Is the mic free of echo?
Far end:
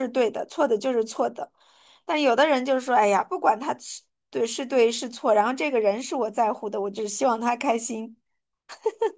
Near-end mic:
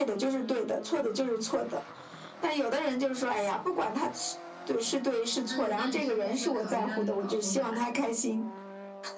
No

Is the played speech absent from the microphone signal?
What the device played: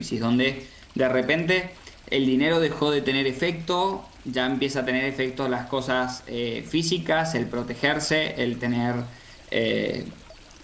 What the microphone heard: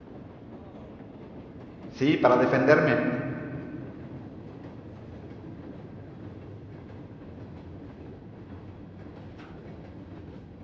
Yes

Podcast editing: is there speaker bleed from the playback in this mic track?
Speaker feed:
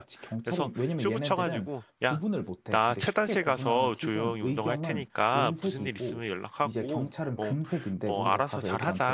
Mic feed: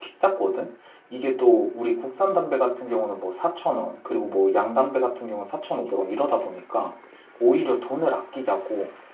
No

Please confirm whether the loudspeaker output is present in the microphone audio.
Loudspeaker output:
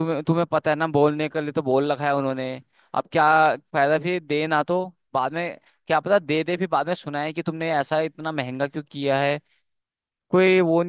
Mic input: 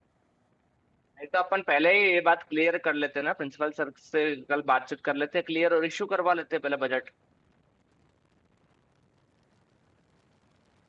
No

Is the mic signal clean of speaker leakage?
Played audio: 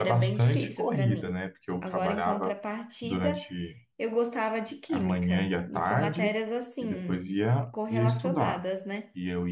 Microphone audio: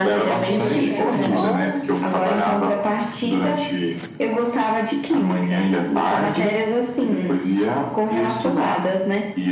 No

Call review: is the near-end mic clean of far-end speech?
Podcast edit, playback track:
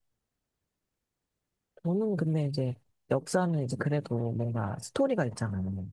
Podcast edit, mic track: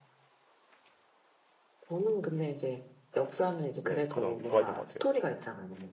No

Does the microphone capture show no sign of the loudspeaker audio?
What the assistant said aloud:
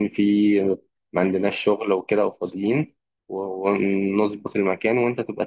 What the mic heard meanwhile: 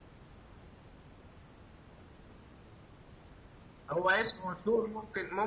Yes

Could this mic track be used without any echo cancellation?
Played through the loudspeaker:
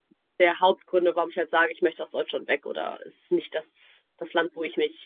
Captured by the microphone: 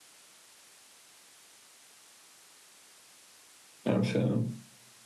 Yes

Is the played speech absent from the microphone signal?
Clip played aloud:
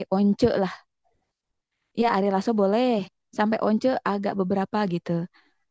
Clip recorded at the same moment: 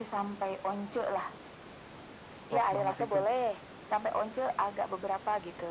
No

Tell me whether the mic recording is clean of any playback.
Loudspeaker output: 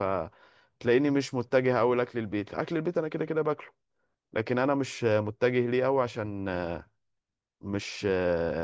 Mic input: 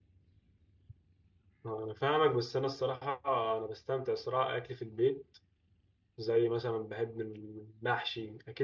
Yes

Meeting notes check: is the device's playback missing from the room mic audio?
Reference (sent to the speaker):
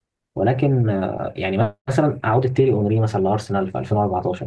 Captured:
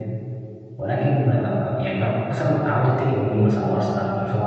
No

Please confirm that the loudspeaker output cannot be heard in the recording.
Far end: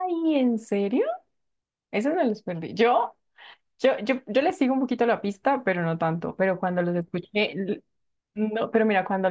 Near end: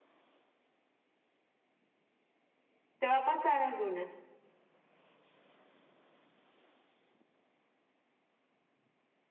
Yes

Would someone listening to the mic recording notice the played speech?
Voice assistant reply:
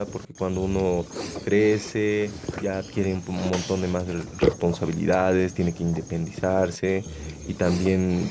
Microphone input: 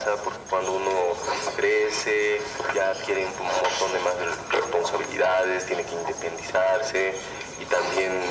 Yes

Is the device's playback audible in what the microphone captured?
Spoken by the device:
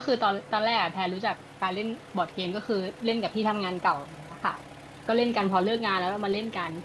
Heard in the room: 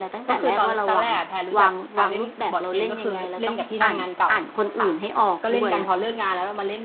Yes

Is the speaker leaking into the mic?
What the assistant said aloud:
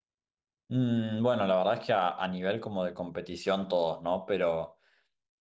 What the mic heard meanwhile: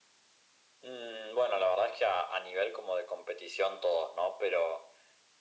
Yes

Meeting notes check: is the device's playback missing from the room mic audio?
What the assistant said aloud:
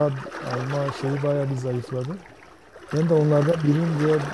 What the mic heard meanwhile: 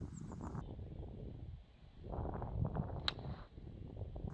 Yes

